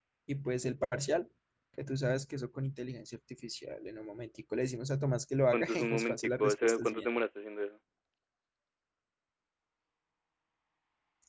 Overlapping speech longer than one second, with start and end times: 5.5-7.1

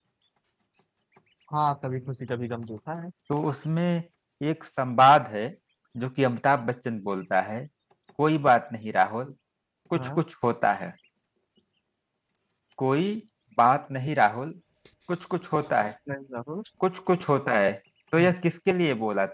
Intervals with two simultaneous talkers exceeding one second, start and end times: none

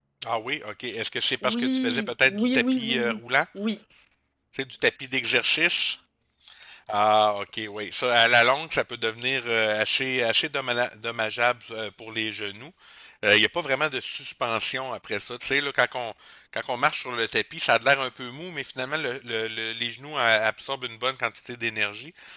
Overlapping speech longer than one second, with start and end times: 1.4-3.2

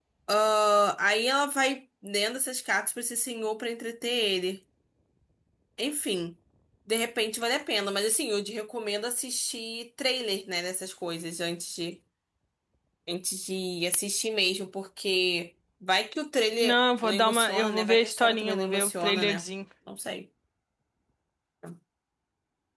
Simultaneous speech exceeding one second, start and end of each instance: 16.6-19.4

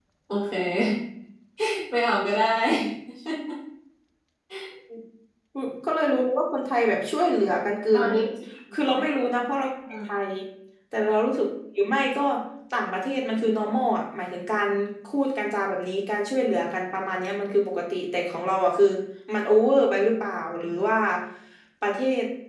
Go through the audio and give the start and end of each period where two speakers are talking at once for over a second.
none

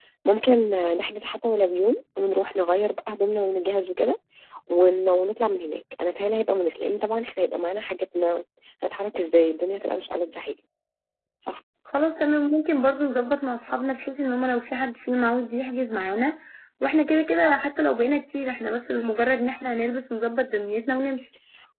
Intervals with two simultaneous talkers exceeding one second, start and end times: none

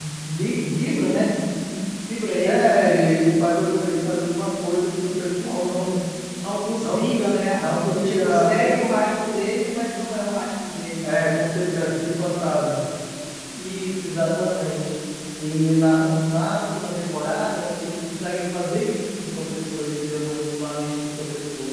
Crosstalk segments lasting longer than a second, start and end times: 7.5-8.9

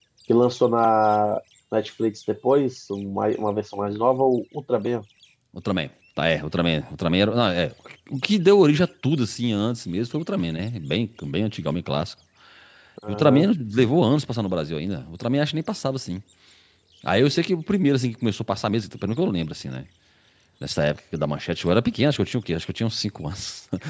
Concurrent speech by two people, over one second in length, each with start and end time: none

